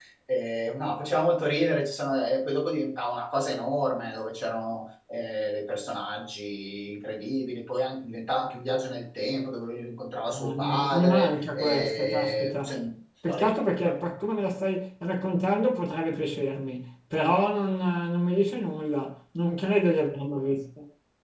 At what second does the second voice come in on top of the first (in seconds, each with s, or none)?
10.3 s